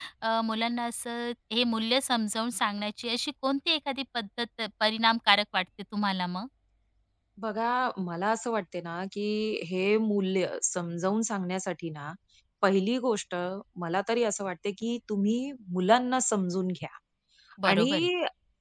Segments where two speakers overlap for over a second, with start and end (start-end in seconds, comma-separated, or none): none